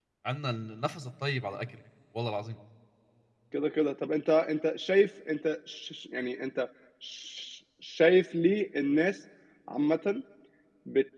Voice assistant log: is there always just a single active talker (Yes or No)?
Yes